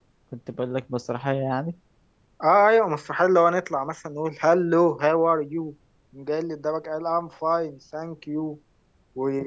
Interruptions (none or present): none